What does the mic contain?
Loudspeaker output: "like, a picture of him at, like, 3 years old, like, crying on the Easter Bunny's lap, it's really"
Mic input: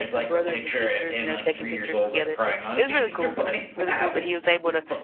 both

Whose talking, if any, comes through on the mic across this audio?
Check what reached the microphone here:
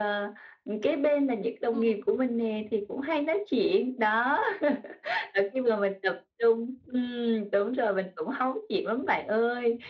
both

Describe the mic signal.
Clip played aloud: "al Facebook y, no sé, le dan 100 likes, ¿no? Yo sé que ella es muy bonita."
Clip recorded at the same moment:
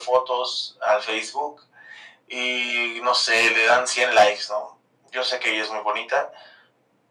echo only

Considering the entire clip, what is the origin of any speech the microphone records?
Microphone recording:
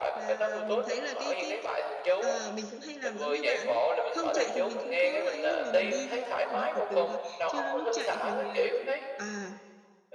both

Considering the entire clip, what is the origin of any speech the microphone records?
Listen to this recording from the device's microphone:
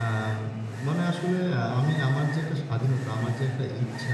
user only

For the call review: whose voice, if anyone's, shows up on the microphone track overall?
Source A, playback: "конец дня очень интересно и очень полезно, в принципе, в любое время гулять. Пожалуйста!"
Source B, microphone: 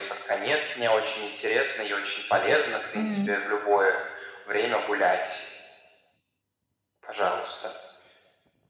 both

